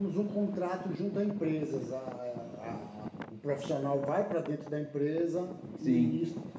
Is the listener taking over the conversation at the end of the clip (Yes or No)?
Yes